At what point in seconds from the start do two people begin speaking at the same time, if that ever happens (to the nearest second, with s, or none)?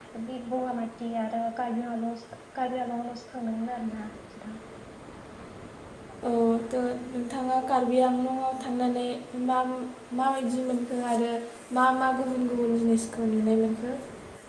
none